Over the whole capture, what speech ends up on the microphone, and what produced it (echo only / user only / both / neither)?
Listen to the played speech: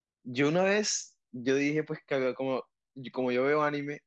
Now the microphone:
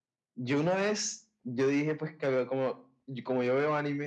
echo only